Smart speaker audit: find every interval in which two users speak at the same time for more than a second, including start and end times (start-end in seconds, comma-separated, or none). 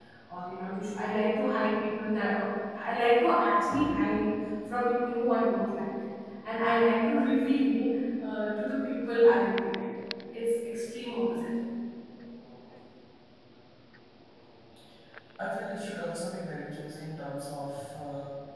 none